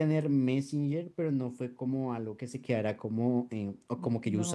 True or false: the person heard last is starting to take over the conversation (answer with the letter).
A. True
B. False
B